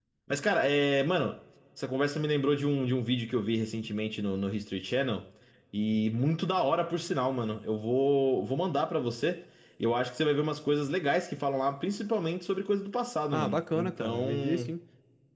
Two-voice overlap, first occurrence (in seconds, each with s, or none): 13.3 s